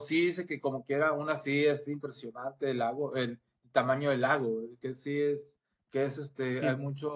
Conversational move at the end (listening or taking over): listening